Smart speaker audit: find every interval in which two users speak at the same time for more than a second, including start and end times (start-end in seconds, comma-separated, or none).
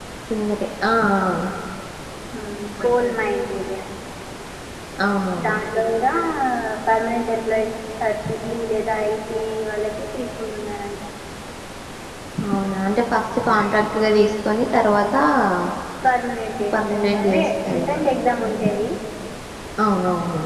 16.7-18.0